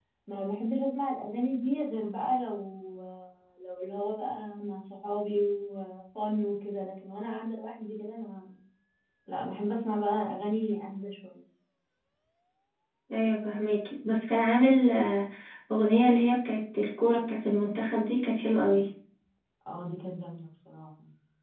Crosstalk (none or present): none